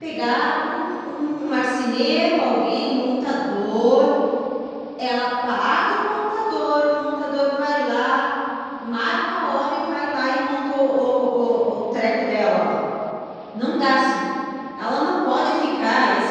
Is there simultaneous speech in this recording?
No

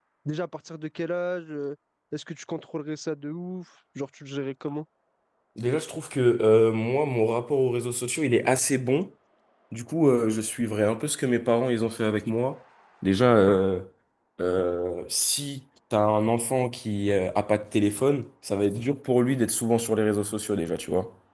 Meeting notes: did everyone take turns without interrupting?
Yes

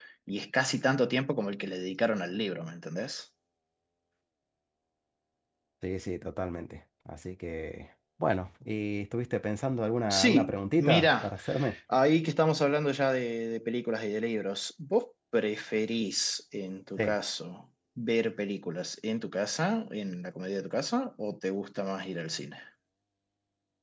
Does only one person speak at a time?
No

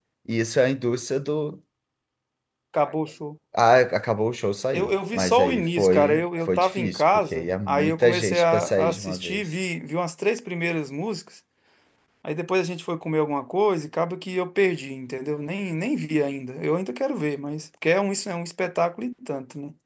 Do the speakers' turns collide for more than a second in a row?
Yes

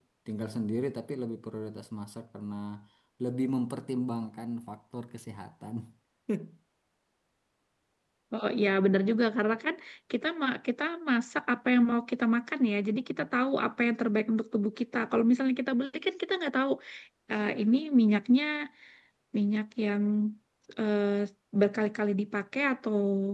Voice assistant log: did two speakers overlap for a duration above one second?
No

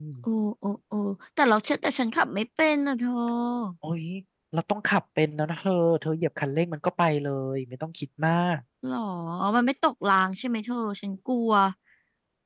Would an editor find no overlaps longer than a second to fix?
Yes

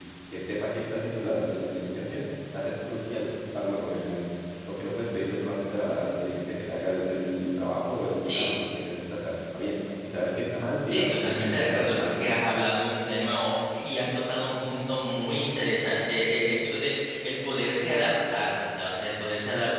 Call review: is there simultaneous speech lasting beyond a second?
Yes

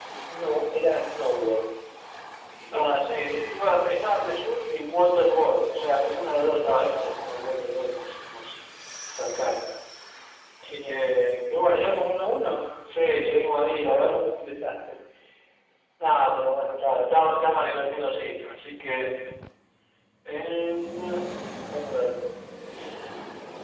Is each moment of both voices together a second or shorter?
Yes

